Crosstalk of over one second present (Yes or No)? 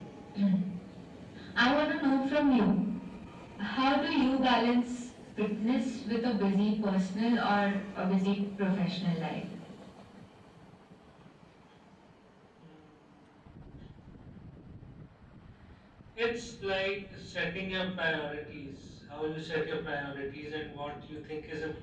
No